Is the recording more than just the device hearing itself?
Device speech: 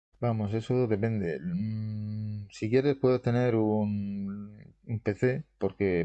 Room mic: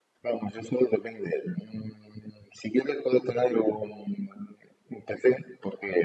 No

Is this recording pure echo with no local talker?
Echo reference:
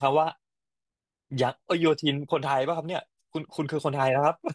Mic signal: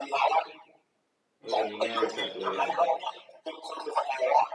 No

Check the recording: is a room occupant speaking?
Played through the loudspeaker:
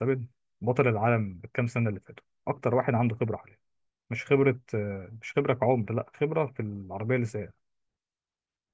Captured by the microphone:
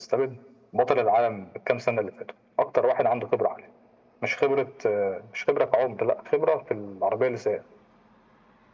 No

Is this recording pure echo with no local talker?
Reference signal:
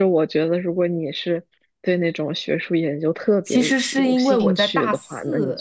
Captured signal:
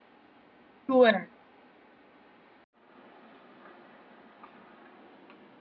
No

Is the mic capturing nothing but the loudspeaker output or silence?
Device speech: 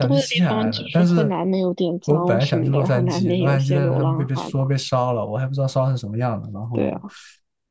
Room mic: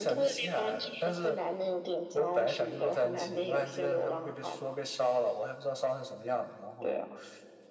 Yes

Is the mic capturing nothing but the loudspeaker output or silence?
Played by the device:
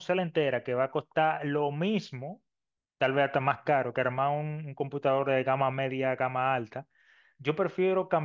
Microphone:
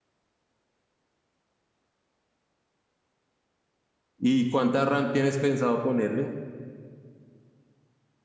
No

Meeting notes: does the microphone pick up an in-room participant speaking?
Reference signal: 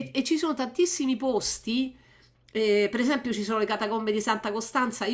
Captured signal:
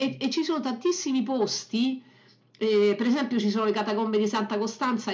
No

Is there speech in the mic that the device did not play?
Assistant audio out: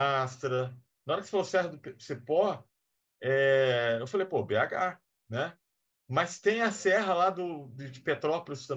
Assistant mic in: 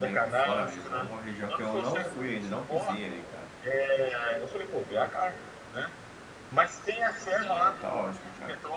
Yes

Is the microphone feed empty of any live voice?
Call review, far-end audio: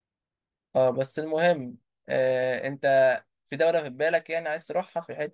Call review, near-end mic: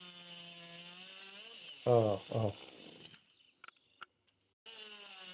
No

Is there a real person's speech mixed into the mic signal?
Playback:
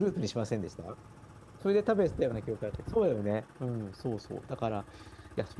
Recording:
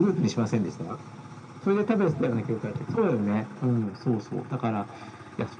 No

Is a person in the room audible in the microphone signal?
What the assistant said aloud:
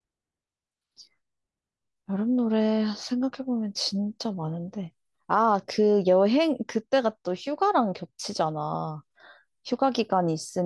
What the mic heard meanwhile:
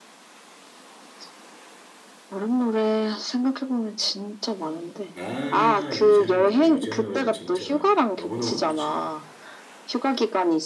Yes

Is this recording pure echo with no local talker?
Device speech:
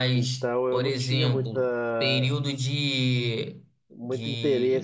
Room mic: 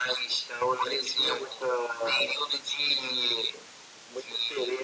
Yes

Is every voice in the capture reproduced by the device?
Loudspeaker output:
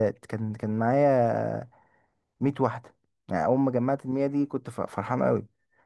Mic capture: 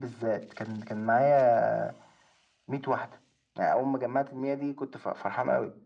Yes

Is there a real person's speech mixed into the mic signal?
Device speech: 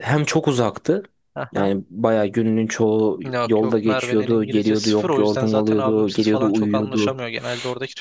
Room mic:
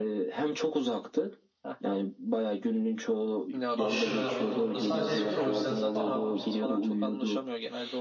Yes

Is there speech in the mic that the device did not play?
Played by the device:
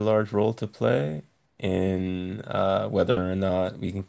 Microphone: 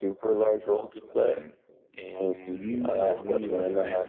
Yes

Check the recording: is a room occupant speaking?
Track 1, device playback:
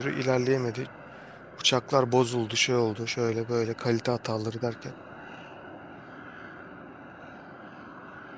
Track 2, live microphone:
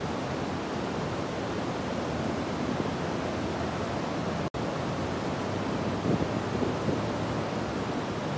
No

